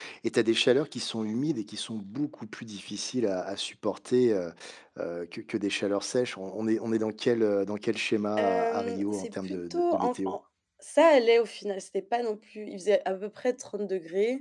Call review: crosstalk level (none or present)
present